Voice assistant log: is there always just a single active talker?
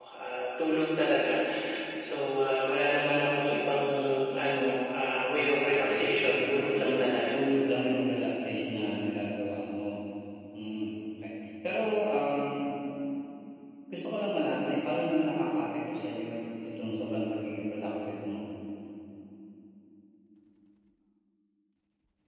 No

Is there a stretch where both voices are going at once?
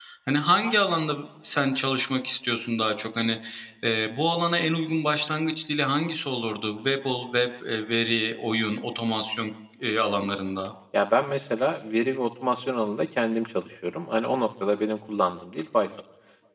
No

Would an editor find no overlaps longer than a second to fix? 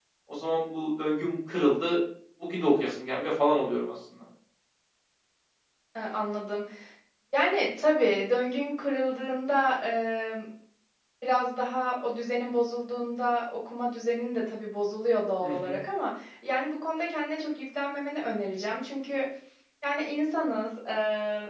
Yes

